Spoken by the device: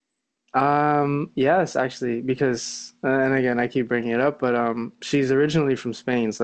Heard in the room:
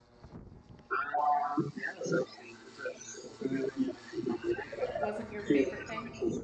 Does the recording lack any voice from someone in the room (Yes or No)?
No